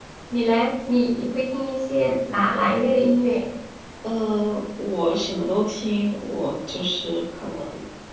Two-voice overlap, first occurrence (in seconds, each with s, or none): none